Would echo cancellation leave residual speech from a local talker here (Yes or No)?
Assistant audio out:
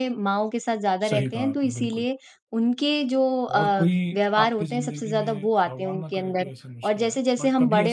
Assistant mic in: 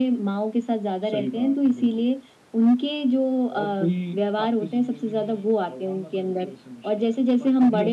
No